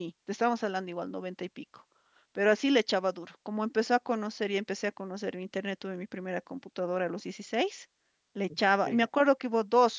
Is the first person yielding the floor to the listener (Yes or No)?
No